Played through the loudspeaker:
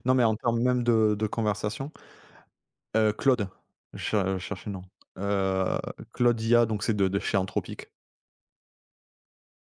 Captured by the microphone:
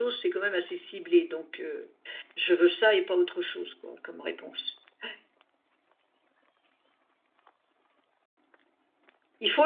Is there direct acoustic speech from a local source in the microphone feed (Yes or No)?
Yes